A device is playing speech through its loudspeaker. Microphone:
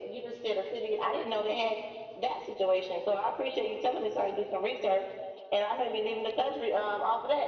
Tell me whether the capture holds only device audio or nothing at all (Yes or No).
Yes